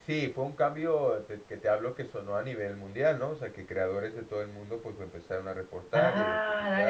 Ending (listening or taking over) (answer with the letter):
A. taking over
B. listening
A